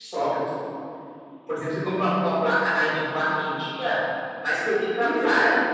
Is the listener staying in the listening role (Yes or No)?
Yes